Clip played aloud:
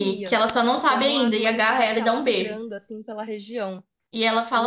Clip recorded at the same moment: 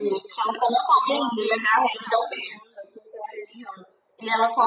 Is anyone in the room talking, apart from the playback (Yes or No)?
No